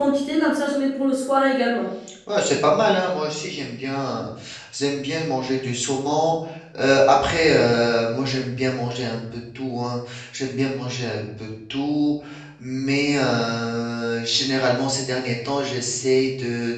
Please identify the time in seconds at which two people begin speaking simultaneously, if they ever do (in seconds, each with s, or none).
none